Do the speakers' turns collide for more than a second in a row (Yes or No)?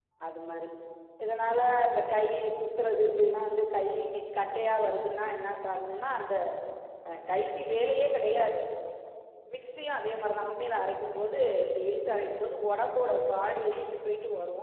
No